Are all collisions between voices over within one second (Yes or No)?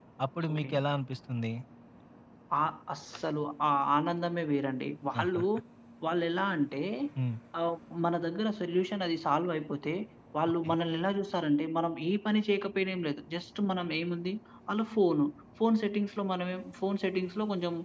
Yes